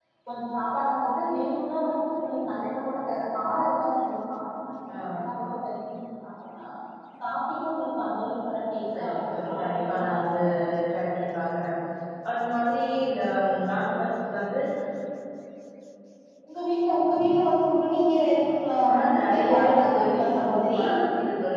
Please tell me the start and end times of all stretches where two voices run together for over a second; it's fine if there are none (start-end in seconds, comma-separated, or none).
9.0-10.4, 18.9-20.8